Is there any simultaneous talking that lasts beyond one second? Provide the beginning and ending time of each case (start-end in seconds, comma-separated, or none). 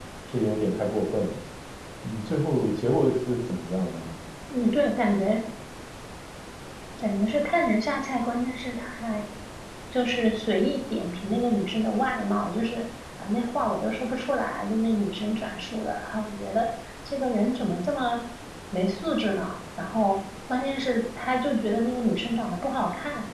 none